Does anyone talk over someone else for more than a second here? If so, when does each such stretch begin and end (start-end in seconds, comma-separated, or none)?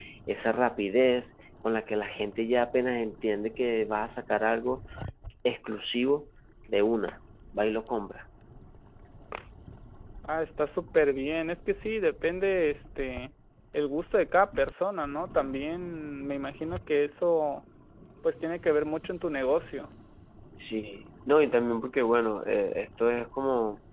none